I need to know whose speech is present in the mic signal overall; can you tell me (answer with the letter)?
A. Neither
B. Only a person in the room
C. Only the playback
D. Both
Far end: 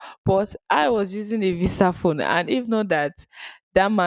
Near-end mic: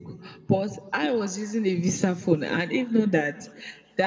C